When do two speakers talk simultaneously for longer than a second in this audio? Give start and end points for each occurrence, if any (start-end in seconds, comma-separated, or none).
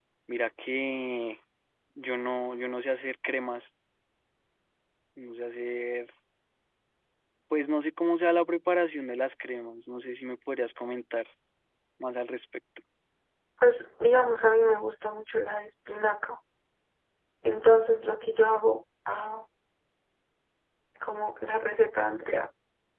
none